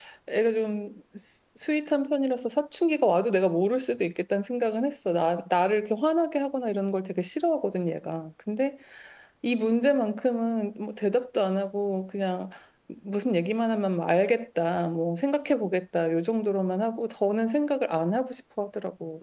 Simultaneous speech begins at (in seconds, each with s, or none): none